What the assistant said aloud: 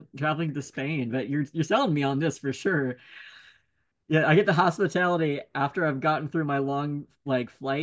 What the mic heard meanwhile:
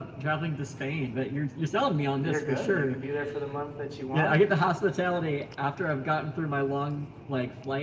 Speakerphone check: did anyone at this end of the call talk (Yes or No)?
Yes